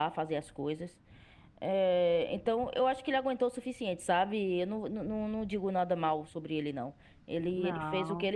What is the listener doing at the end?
listening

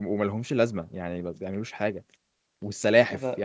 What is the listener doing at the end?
listening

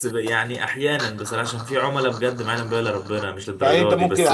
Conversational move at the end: taking over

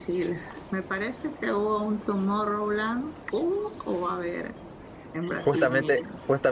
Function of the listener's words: taking over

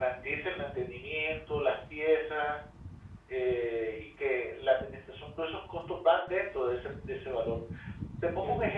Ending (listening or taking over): taking over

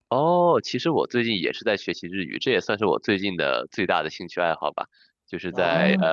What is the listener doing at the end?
listening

